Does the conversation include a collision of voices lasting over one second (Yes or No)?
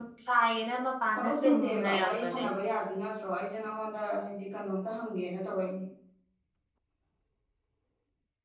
Yes